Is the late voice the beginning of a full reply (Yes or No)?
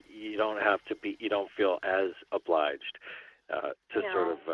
No